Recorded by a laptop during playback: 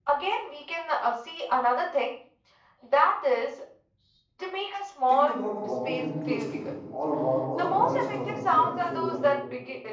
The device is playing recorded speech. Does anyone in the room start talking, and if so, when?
5 s

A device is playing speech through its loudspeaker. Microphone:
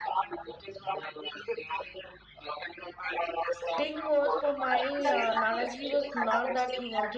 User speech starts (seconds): 4 s

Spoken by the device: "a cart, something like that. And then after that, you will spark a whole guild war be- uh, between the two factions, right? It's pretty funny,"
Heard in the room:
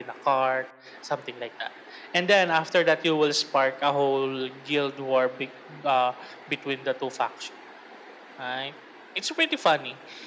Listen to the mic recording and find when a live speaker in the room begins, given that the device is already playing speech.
none

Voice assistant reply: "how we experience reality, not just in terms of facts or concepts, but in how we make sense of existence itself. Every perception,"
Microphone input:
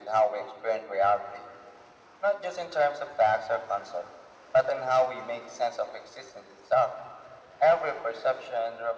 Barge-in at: none

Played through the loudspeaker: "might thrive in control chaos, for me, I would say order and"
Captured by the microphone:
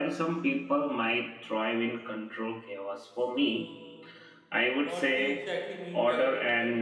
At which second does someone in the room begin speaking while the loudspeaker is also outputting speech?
3 s

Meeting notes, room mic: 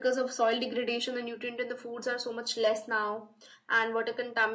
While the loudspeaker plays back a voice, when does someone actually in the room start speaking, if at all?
none

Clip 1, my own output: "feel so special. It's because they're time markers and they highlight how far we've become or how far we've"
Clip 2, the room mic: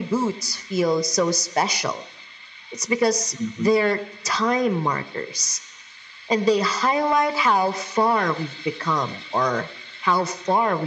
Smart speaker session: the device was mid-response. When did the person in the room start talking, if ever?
3 s

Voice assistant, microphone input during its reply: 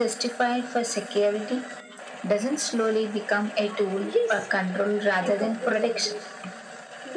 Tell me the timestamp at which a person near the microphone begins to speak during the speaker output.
4 s

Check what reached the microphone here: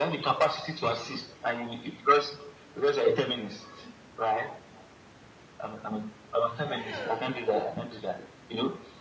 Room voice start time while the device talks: 7 s

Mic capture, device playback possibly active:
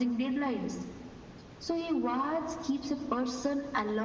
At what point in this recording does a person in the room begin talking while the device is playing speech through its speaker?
none

